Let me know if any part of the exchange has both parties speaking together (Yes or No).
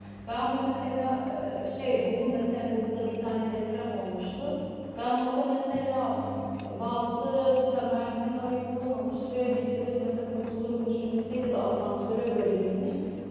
No